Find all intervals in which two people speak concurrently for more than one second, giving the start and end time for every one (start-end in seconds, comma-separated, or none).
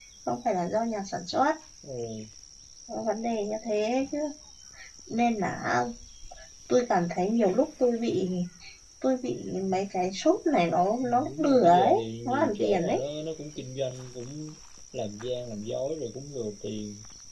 11.0-13.0